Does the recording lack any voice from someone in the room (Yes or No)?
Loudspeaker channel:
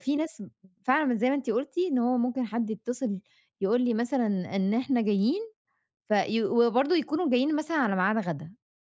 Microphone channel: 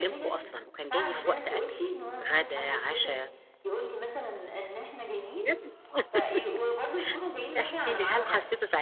No